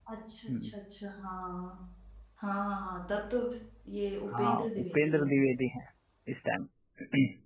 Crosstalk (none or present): present